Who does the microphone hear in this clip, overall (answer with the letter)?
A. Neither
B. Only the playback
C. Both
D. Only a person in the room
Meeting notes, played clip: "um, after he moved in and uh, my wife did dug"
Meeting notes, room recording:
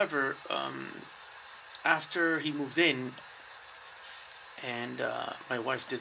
B